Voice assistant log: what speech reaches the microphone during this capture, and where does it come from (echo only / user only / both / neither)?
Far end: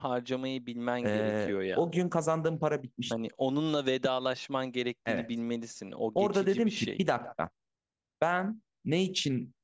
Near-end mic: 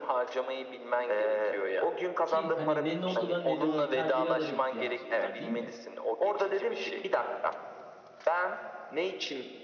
both